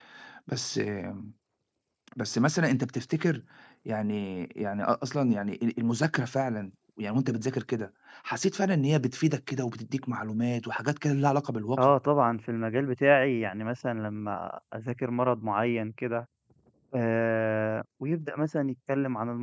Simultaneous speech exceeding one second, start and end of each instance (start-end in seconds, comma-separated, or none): none